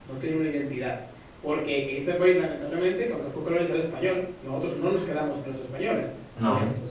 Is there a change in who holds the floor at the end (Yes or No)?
No